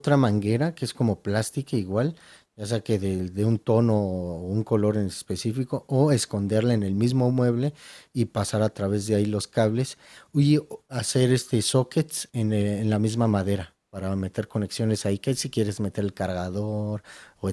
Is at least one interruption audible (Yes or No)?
No